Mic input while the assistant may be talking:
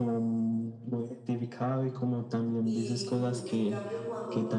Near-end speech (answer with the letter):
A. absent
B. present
B